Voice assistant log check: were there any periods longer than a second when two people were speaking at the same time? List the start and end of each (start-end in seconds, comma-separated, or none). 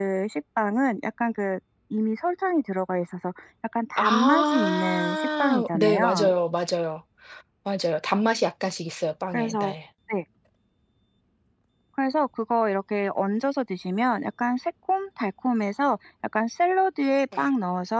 4.0-6.3